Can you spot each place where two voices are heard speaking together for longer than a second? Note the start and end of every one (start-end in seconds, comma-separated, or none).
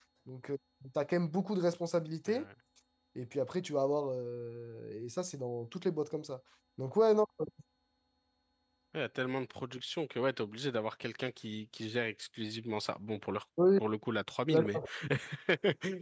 none